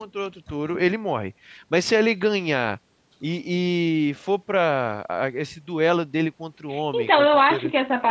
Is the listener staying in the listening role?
No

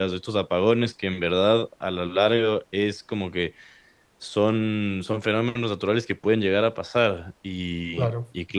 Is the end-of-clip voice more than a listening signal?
No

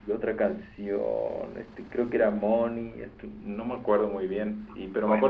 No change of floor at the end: Yes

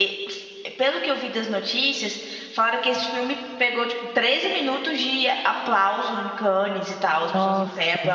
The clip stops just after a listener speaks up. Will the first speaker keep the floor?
Yes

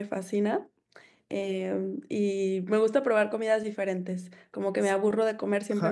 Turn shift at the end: Yes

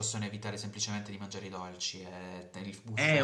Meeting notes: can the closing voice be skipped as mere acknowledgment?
No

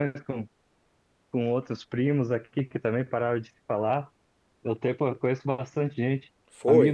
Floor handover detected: No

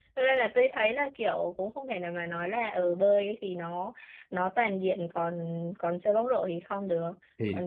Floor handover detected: No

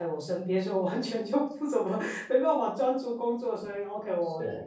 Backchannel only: Yes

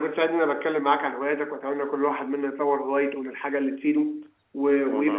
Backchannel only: Yes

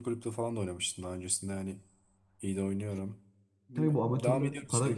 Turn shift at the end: Yes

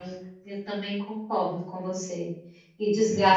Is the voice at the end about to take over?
No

